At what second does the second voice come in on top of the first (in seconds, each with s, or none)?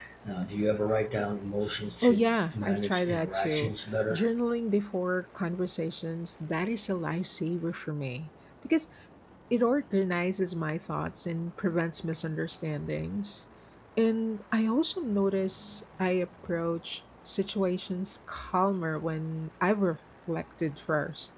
2.0 s